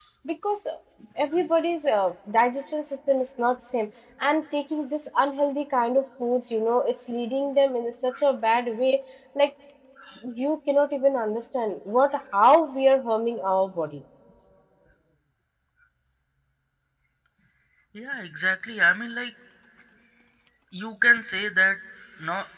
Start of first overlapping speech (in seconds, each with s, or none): none